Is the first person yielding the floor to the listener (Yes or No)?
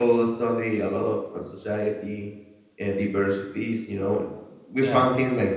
No